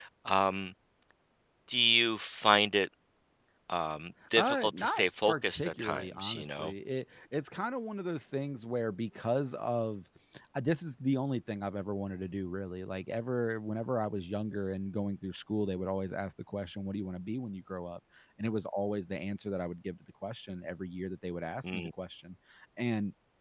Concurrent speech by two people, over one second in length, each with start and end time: 4.4-6.7

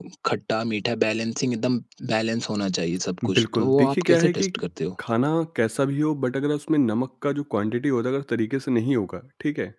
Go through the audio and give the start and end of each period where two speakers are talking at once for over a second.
3.2-4.5

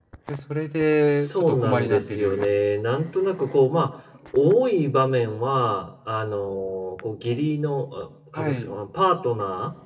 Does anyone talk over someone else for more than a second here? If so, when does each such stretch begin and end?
1.1-2.5

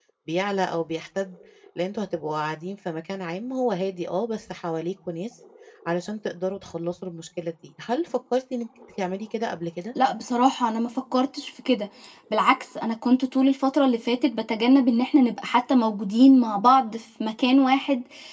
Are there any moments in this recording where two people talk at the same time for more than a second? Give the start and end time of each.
none

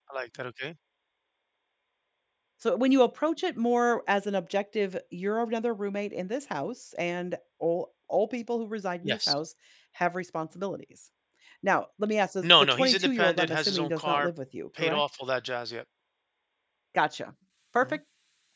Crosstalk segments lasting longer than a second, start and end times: 12.4-14.3

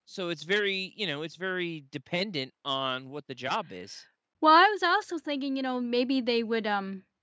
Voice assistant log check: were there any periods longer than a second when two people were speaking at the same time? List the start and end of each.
none

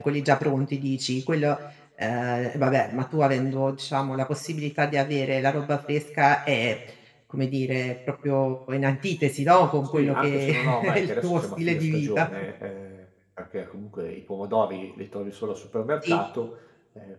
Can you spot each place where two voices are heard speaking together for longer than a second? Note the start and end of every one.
9.9-12.3

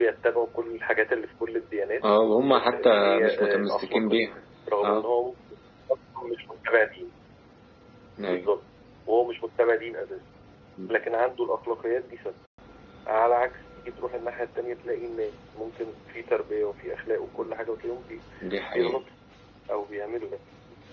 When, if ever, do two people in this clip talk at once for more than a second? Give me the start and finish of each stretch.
2.5-4.2

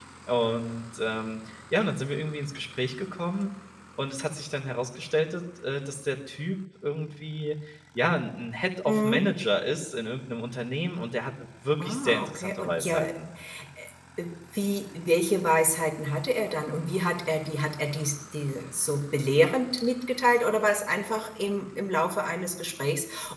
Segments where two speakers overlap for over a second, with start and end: 11.8-13.1

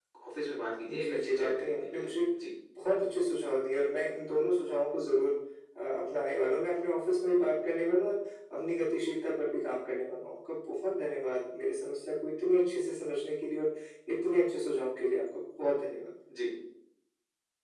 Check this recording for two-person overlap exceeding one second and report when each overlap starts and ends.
0.9-2.1

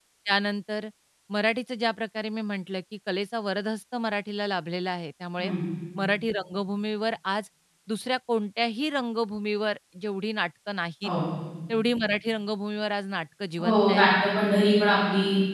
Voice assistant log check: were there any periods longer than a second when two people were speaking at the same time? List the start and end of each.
none

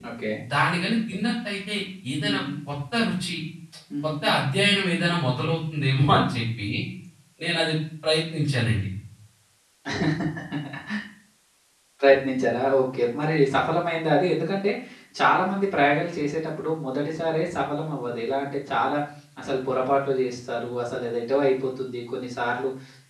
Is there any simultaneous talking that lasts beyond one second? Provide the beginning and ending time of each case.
none

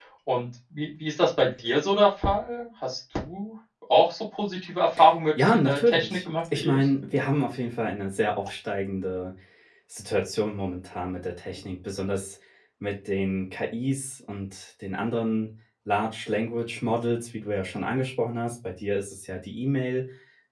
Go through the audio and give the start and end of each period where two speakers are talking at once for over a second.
5.4-6.9

